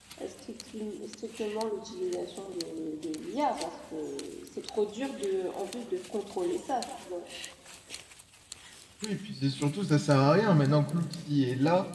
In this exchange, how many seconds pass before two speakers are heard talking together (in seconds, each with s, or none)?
none